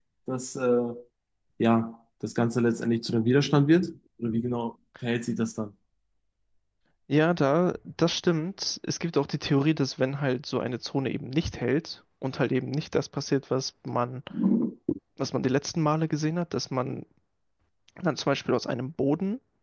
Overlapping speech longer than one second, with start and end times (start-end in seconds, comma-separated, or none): none